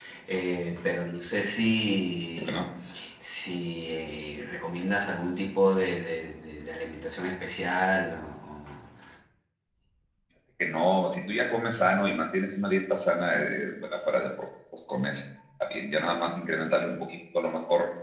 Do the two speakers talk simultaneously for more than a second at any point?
No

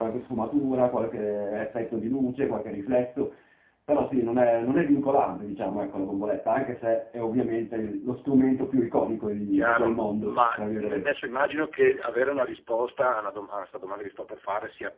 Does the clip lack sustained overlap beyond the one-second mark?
No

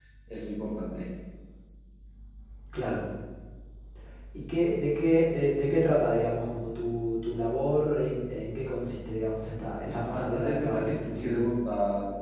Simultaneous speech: Yes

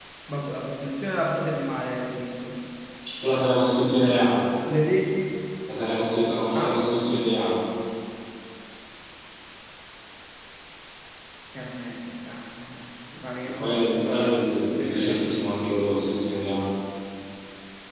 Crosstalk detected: Yes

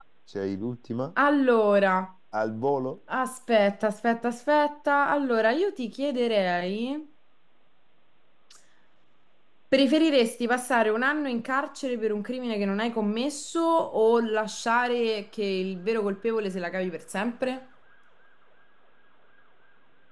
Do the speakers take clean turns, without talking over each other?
Yes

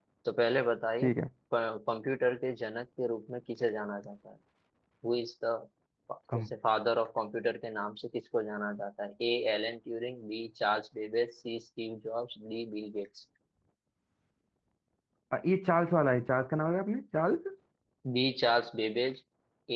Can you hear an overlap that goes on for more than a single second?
No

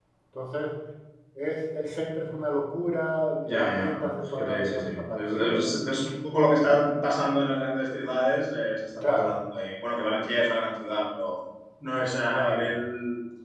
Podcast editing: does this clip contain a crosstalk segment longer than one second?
Yes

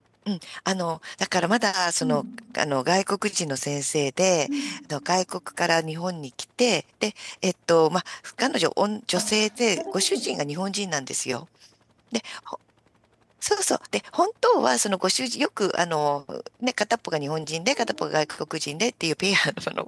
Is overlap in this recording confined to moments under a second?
Yes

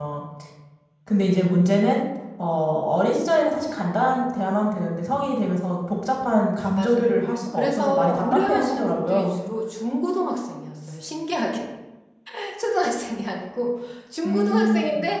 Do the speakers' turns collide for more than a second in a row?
Yes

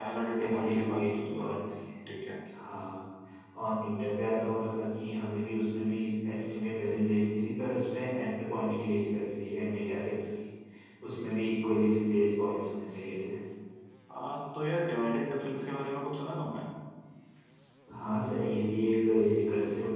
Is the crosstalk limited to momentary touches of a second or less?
No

